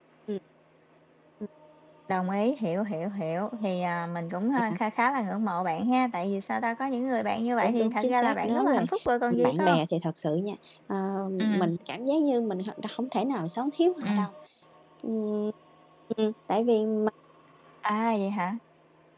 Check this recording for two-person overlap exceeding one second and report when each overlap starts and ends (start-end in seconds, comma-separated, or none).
7.6-8.8